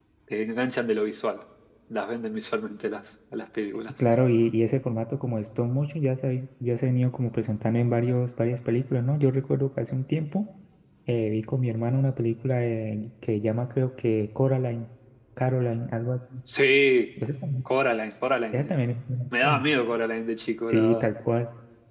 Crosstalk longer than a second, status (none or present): none